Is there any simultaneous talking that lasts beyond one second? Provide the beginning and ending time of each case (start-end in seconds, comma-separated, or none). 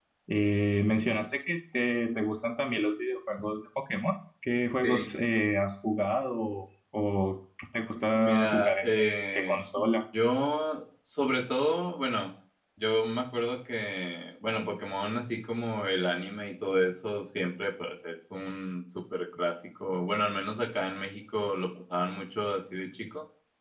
8.2-9.6